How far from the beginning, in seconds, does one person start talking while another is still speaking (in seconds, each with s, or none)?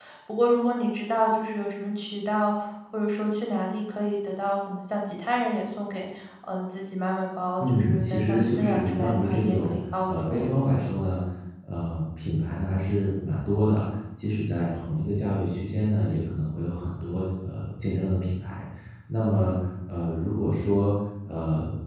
7.6 s